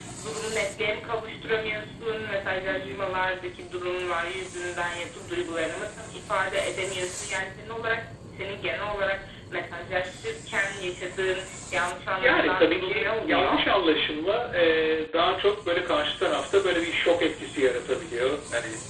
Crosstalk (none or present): present